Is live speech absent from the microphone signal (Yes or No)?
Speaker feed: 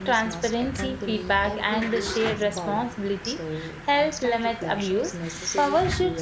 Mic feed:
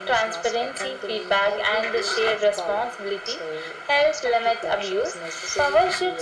Yes